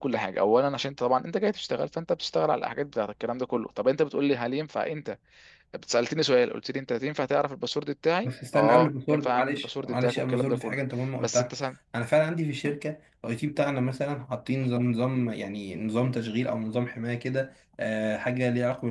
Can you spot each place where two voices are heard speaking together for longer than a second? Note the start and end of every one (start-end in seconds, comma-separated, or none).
8.5-10.8